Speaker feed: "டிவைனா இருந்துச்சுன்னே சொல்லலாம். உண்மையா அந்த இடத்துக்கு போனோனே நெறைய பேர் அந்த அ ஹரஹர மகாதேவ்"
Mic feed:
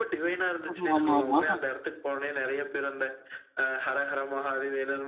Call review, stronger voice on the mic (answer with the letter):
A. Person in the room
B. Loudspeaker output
A